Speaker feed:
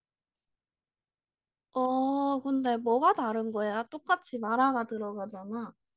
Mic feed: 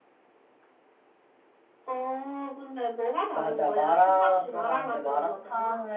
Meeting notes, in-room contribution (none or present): present